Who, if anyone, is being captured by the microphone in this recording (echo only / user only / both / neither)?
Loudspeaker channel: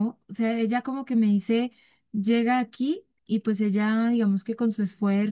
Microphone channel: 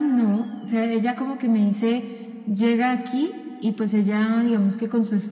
echo only